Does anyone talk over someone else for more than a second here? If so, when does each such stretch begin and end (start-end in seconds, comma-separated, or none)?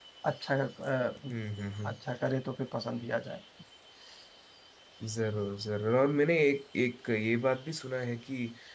none